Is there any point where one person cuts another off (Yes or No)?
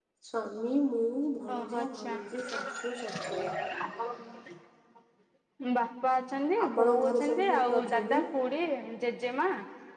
Yes